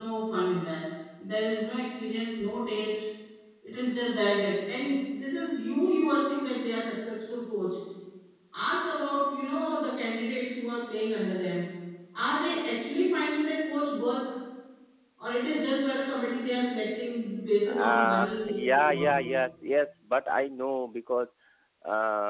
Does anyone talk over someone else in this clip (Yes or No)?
Yes